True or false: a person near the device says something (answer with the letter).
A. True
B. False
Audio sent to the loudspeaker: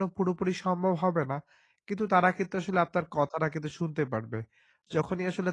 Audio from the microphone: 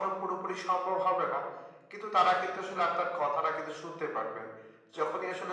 B